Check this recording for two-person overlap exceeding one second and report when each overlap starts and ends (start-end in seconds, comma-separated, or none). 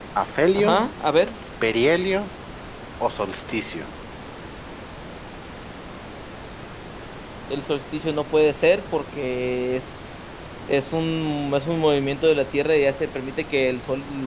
none